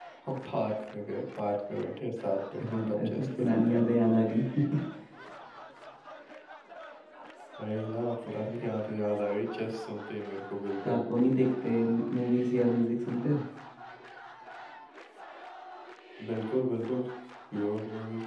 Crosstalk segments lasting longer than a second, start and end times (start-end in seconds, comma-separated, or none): 2.6-3.8